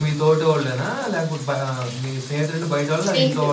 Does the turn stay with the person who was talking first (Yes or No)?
No